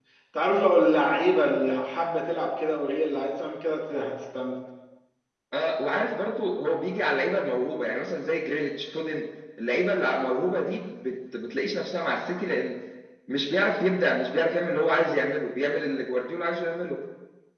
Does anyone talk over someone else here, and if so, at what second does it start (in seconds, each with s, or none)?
none